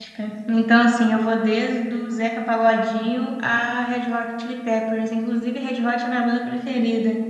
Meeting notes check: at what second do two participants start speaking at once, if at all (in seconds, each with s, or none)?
none